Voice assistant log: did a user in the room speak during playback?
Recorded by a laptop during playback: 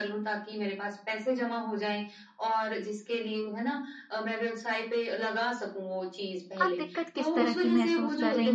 Yes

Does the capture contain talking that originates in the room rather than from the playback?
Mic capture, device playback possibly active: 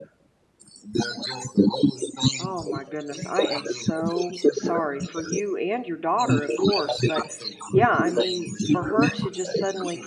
Yes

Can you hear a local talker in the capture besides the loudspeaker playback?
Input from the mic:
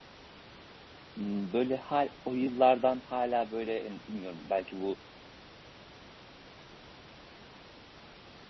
Yes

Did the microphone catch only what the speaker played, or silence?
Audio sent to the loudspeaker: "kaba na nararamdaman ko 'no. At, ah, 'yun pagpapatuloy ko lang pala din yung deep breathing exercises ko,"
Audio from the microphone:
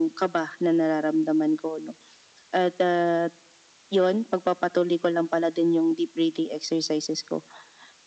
Yes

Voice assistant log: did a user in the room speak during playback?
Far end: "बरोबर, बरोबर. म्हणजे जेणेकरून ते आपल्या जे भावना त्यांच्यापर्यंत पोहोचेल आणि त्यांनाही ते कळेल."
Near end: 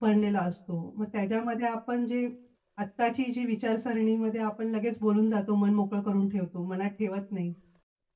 Yes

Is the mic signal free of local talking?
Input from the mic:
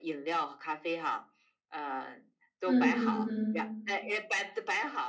No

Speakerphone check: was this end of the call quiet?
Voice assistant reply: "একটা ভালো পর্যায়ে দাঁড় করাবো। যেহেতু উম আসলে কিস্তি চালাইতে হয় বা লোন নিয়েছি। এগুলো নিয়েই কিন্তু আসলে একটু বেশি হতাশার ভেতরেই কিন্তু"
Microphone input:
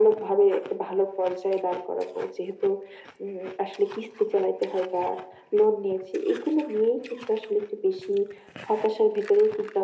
Yes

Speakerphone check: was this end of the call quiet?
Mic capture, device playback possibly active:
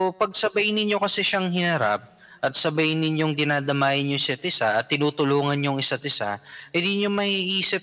Yes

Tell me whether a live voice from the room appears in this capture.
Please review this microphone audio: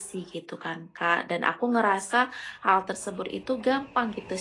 No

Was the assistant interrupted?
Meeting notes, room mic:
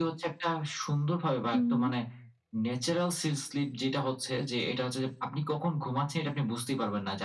Yes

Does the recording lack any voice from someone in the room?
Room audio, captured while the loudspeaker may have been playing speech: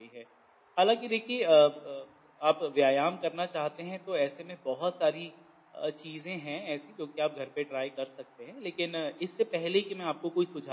Yes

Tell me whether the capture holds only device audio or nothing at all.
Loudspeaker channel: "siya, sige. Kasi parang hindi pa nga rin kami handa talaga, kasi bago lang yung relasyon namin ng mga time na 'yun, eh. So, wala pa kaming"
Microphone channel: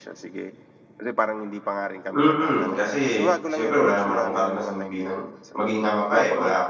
No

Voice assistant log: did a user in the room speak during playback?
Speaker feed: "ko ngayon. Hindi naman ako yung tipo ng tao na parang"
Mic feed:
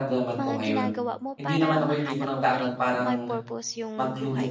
Yes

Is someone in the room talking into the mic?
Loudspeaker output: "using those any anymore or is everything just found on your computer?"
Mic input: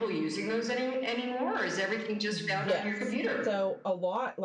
Yes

